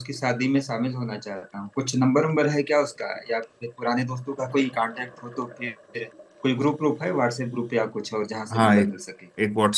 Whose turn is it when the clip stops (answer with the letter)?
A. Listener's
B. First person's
A